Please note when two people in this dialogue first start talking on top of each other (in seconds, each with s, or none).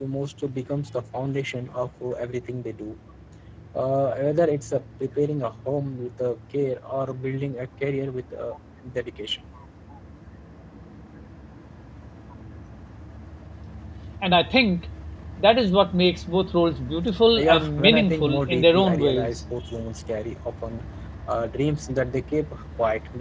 17.4 s